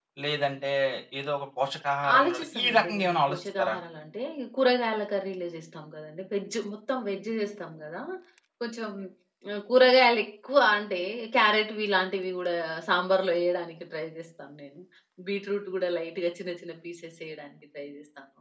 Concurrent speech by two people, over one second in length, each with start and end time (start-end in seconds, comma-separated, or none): 2.2-3.8